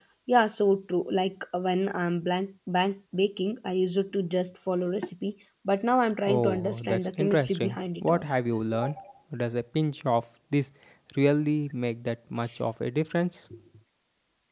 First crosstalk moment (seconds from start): 6.3 s

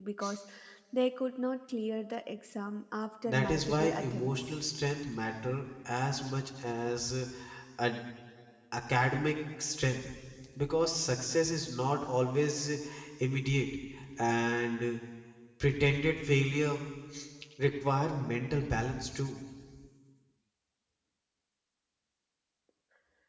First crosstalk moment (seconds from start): 3.2 s

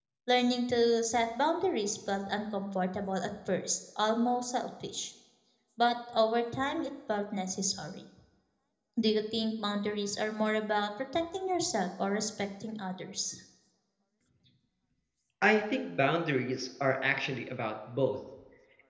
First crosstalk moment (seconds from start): none

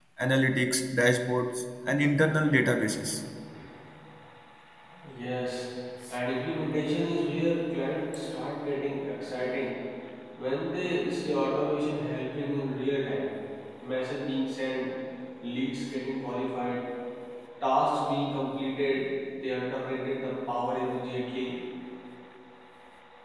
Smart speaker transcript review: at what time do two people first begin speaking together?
none

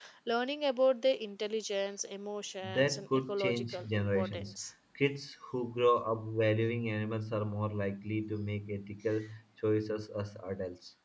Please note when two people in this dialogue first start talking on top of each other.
2.6 s

